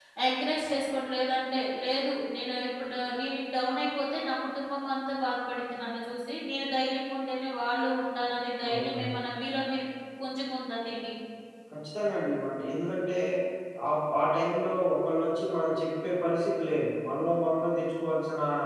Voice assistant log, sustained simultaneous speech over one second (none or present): none